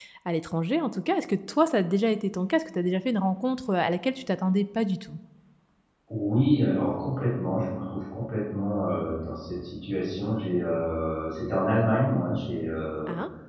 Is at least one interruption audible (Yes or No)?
No